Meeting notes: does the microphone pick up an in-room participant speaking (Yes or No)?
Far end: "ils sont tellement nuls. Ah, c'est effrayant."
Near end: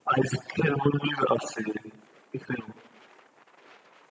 No